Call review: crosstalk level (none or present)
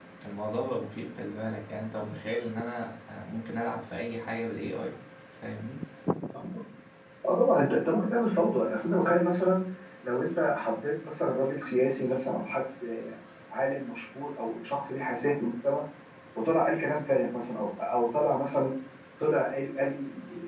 none